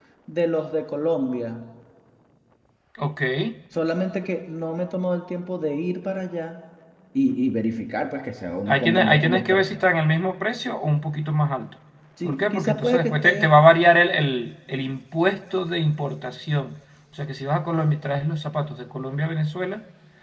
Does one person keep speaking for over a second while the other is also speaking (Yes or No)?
Yes